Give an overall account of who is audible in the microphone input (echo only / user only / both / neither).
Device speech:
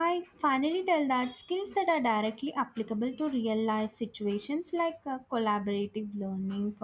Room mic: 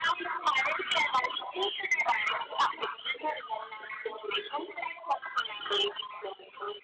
echo only